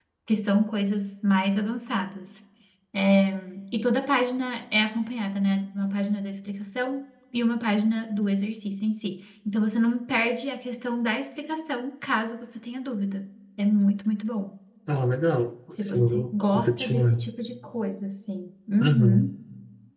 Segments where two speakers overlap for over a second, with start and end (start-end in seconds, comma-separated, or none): 15.8-17.2